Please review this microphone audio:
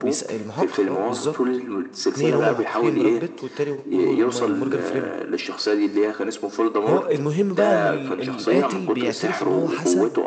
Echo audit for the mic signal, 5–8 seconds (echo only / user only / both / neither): both